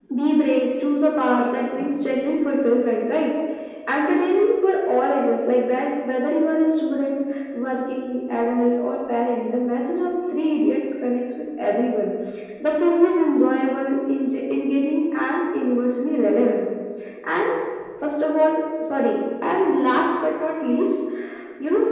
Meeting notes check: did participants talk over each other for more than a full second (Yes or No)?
No